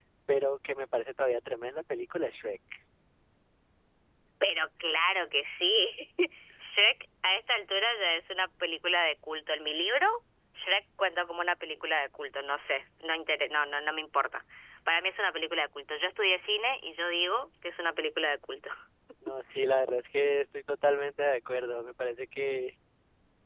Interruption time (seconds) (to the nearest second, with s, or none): none